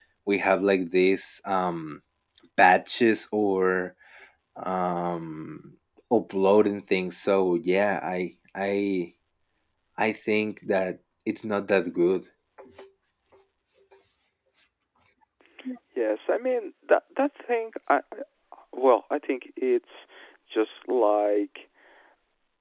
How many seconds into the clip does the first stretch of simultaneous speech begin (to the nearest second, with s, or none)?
none